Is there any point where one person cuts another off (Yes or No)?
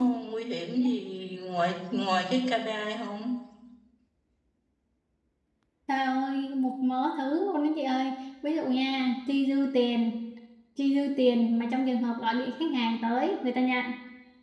No